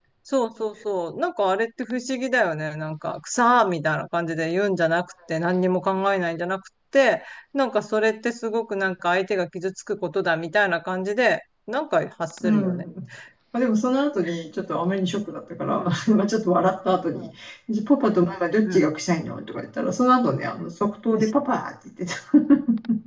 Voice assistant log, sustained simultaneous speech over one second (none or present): none